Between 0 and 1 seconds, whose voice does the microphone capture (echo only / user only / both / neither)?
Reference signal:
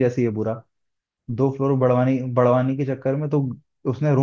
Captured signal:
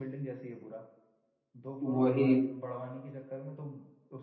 echo only